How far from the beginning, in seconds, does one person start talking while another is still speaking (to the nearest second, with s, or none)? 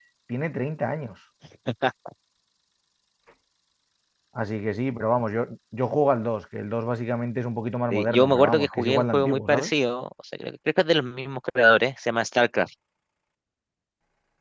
8 s